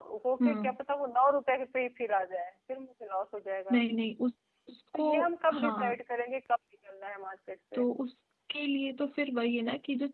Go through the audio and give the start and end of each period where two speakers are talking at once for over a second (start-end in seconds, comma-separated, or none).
none